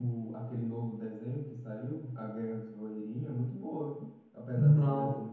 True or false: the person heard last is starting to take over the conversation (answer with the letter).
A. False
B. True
B